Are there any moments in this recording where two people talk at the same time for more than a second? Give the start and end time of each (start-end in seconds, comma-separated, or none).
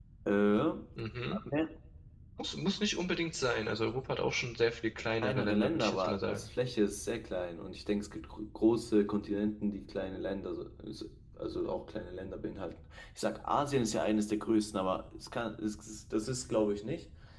5.2-6.5